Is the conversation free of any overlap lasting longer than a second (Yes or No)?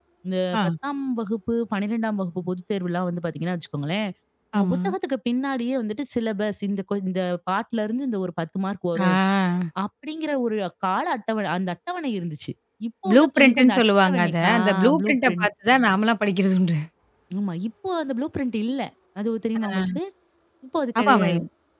No